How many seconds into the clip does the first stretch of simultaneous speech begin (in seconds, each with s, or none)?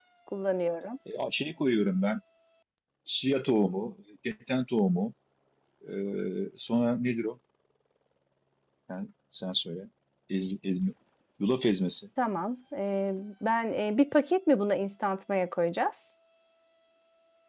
none